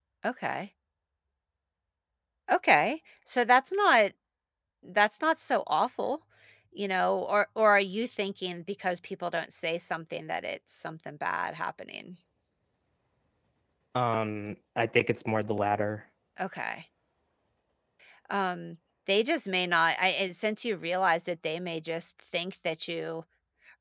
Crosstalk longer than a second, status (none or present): none